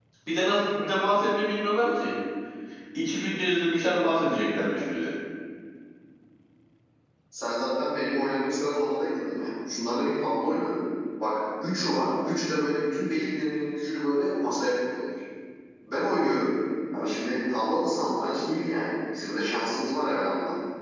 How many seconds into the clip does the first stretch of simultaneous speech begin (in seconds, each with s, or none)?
none